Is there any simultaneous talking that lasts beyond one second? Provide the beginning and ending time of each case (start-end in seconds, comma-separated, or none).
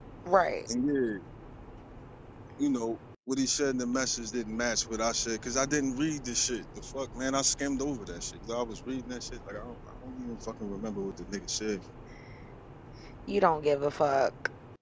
none